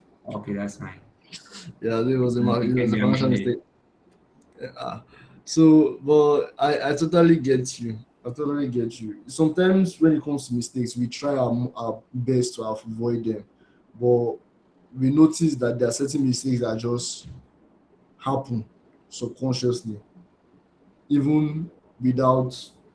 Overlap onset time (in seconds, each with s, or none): 2.2 s